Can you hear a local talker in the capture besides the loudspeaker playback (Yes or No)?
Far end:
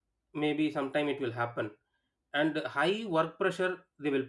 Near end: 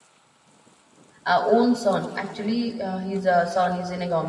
Yes